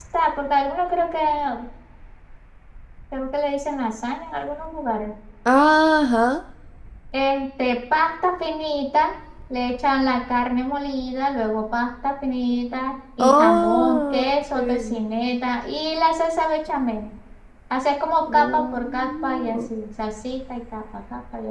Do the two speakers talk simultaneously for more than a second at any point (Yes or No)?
Yes